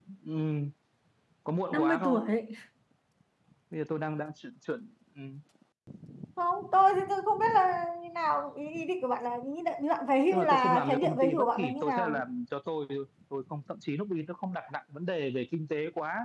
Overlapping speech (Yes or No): Yes